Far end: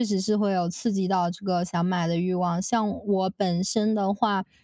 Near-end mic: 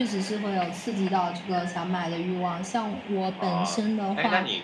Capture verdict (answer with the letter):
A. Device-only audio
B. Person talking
B